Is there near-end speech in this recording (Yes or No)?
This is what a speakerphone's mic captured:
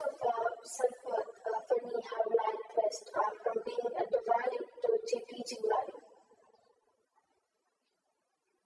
No